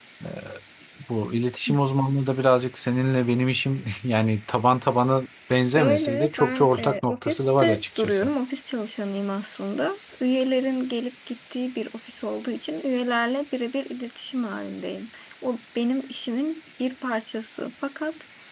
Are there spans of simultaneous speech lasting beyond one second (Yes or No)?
Yes